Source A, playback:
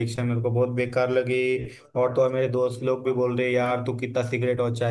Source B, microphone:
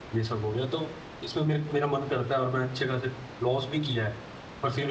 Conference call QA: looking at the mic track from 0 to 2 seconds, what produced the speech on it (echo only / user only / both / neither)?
user only